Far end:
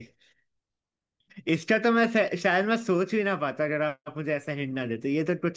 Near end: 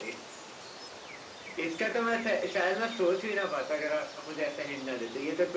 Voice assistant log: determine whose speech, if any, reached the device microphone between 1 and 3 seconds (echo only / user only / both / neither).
echo only